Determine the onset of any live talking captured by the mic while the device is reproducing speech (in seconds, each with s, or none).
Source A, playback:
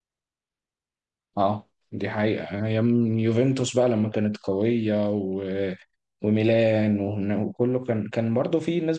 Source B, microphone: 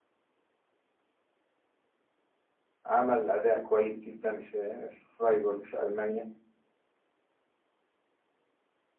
2.8 s